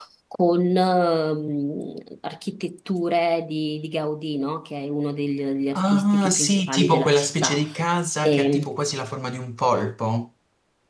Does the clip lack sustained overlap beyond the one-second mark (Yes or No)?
No